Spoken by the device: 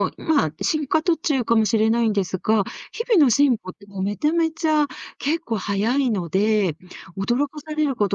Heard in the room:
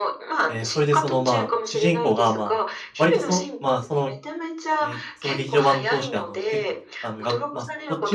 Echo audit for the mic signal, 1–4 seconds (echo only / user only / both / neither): both